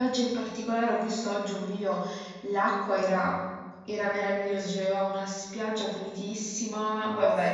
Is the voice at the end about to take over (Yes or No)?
No